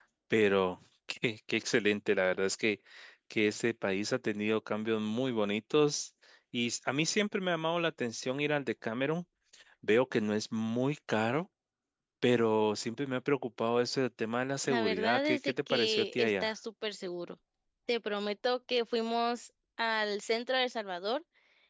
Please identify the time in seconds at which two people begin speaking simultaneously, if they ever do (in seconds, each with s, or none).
14.6 s